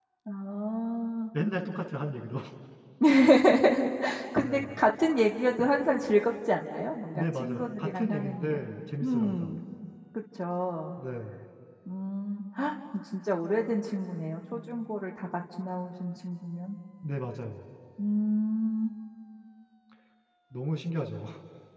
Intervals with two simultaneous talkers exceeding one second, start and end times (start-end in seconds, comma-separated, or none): 7.1-8.6